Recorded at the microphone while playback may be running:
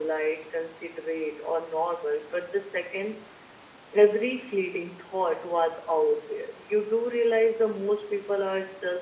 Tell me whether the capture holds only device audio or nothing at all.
Yes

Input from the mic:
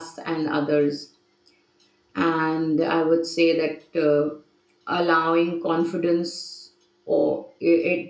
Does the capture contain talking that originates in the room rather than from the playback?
Yes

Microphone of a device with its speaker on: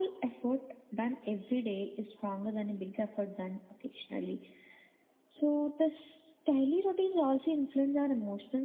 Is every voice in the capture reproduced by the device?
Yes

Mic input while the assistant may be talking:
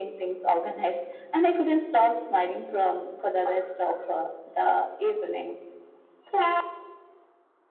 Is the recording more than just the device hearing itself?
No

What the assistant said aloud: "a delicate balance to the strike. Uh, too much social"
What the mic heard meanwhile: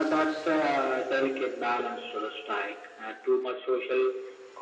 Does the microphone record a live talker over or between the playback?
No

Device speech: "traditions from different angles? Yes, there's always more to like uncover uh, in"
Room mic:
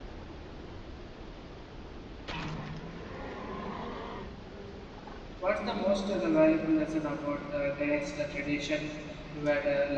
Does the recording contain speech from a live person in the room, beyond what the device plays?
Yes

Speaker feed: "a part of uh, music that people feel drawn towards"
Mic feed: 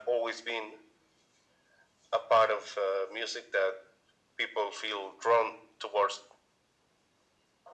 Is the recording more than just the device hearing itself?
No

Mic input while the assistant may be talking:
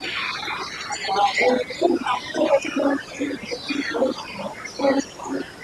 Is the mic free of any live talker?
Yes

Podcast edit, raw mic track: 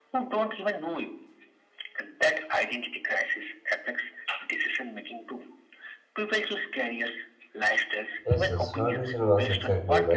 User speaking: Yes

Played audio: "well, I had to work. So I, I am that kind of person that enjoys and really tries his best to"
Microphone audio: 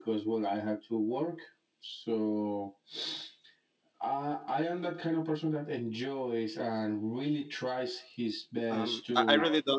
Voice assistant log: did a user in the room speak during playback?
Yes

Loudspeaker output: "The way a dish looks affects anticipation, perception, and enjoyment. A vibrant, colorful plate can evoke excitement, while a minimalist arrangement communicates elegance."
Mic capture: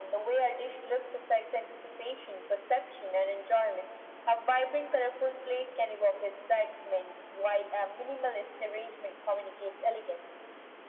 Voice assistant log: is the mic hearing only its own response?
Yes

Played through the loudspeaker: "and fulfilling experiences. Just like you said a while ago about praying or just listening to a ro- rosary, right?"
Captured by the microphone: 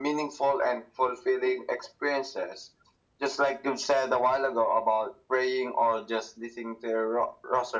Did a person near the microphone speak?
No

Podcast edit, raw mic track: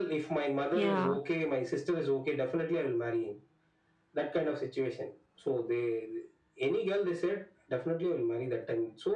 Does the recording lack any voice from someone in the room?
No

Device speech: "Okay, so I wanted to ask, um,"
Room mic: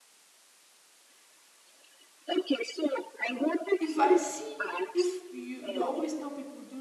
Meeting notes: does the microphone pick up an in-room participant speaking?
Yes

